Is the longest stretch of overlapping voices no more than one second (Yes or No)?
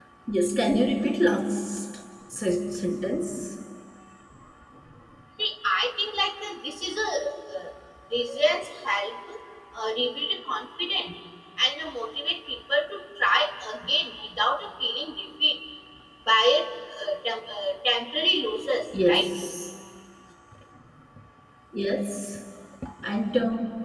Yes